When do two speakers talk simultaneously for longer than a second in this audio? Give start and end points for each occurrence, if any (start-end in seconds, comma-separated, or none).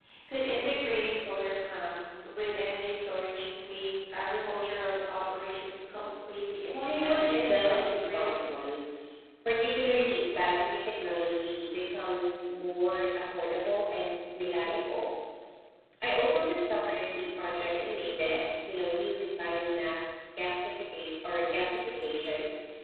6.7-8.3